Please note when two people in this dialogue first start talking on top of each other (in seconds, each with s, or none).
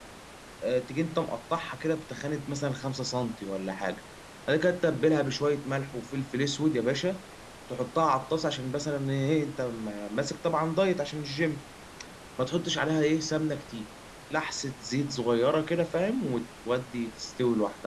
none